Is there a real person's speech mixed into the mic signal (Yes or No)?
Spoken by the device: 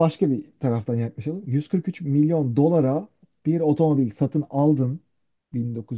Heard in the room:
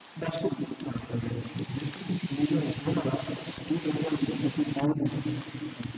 No